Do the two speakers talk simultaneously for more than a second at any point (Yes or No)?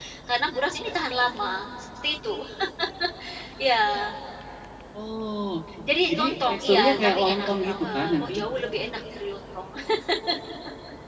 Yes